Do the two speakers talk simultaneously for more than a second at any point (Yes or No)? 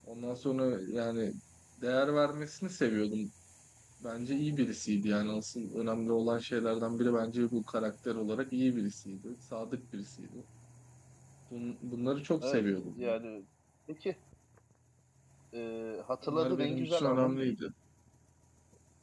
Yes